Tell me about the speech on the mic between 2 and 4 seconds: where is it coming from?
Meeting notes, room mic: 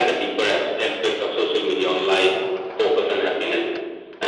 echo only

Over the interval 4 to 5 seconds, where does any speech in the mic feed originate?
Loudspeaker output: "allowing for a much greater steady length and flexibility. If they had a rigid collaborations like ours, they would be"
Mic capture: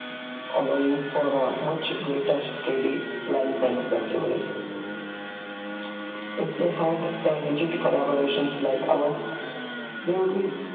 echo only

